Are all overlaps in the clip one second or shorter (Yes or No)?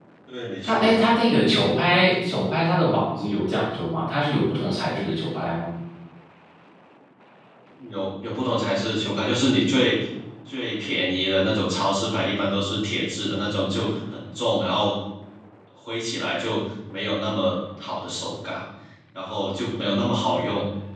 Yes